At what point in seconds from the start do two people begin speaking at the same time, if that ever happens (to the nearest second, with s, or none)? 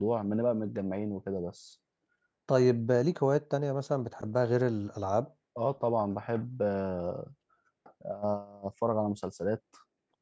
none